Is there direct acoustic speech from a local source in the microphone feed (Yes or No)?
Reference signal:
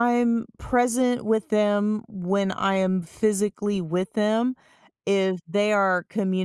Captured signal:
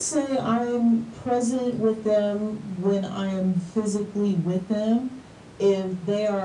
No